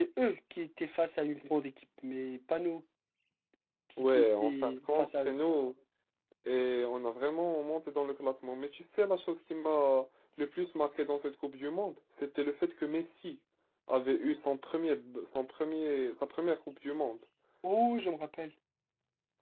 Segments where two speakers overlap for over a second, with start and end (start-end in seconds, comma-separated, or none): 4.0-5.3